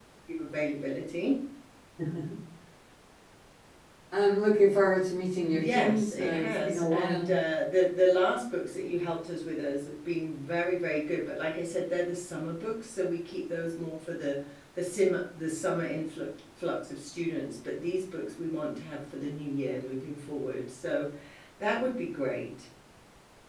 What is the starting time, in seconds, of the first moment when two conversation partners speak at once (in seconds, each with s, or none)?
5.5 s